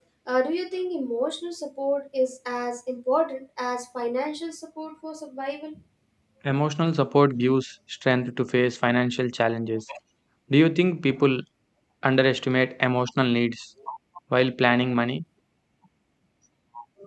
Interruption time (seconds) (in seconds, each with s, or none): none